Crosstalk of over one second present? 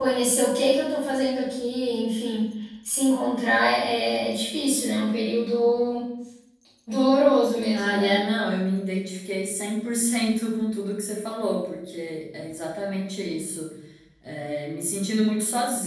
No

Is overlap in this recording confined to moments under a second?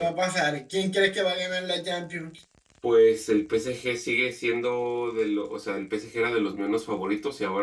Yes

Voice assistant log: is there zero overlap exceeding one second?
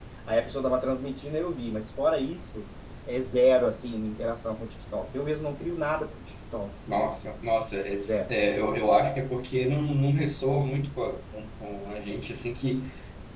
Yes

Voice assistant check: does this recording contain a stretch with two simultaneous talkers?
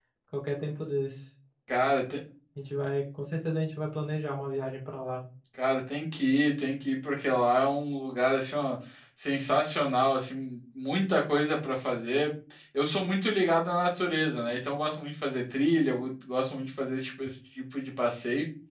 No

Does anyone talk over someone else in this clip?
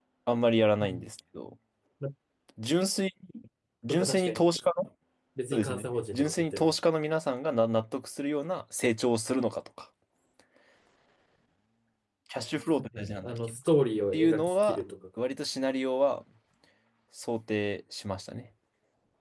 Yes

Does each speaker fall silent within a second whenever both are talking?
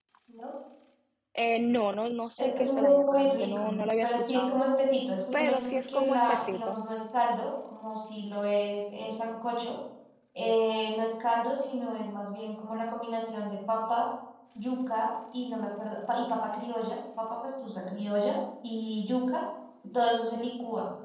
No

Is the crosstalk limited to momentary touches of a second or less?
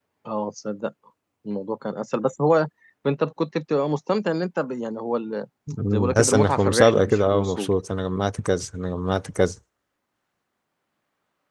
No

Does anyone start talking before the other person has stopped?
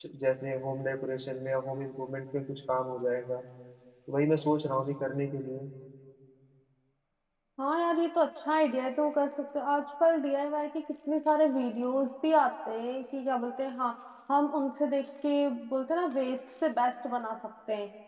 No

